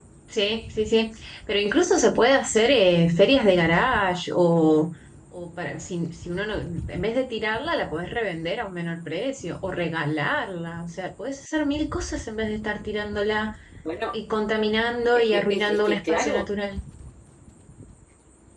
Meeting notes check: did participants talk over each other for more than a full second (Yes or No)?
Yes